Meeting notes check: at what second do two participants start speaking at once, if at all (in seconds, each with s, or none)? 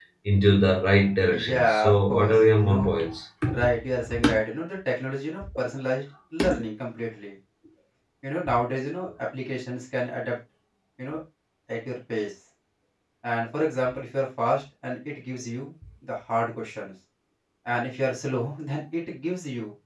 1.5 s